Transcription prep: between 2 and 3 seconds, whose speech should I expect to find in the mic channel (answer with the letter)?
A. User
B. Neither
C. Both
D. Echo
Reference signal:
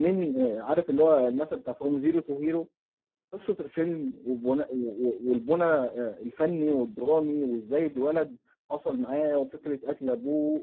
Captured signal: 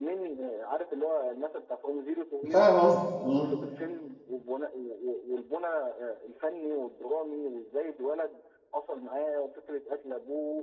C